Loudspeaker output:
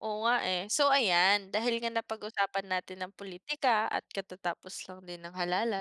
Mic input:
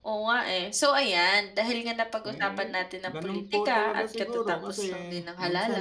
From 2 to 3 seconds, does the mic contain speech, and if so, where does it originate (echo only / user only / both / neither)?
both